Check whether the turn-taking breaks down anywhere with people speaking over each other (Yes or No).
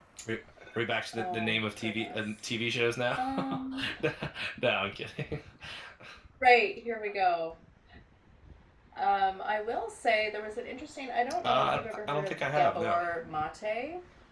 Yes